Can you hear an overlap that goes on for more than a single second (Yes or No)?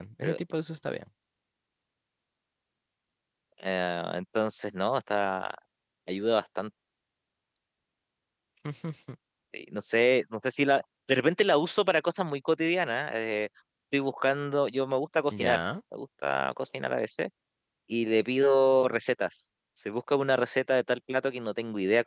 No